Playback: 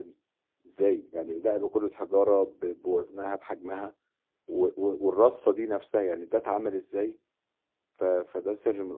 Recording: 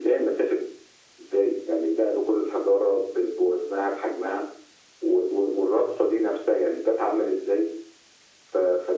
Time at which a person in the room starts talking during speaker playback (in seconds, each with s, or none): none